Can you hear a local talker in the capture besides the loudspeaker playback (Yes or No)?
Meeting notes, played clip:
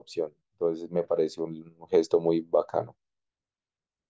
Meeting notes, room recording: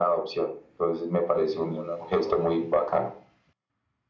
Yes